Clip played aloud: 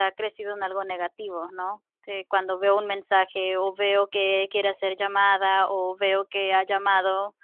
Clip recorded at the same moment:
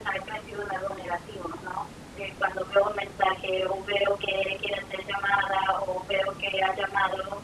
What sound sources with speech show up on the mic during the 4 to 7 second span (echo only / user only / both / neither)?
echo only